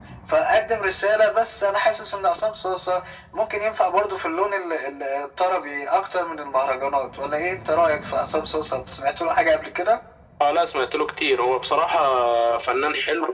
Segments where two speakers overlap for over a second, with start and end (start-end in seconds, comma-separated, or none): none